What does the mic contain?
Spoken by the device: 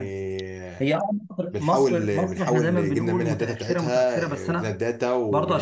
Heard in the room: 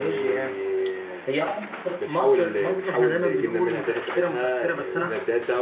echo only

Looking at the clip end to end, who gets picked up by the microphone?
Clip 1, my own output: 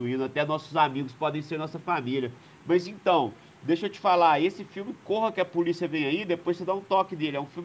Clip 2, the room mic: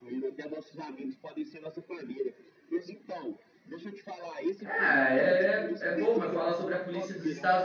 both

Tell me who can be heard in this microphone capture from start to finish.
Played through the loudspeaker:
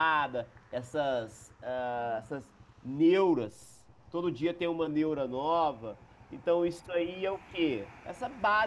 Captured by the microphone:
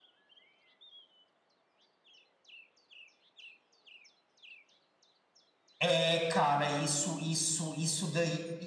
user only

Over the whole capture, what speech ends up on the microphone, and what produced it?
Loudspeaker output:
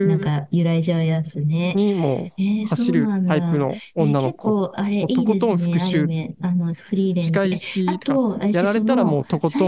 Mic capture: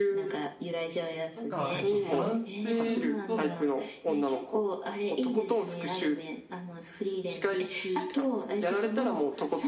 both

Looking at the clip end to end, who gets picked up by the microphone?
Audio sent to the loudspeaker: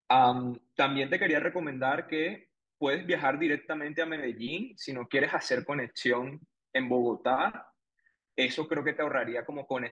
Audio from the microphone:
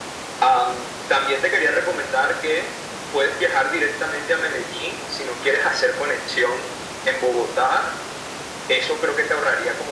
echo only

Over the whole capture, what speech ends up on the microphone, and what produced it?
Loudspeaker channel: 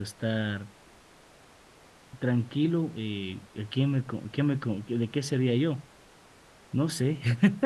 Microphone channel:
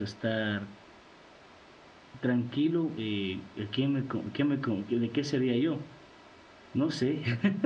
echo only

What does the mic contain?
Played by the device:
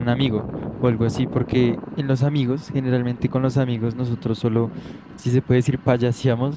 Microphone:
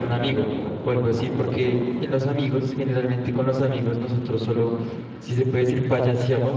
echo only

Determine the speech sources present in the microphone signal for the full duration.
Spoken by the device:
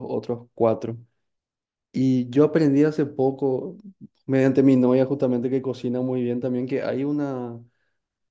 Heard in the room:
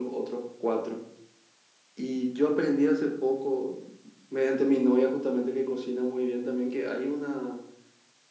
echo only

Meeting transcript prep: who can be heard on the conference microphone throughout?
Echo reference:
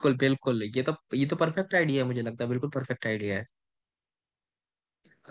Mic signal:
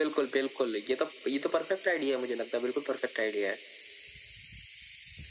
echo only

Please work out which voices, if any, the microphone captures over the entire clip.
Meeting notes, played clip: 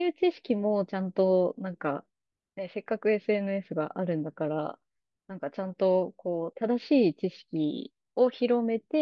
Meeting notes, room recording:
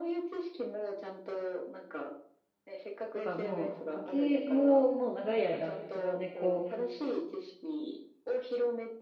both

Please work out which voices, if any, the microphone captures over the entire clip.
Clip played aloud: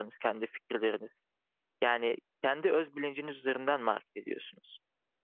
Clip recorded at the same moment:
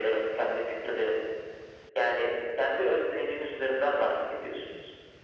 echo only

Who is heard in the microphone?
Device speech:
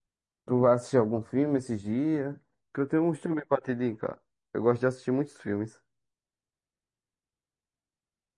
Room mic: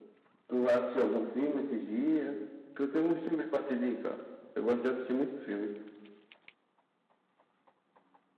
echo only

